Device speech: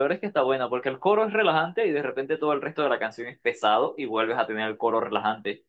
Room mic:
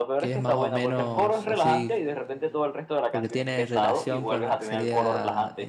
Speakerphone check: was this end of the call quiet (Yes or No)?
No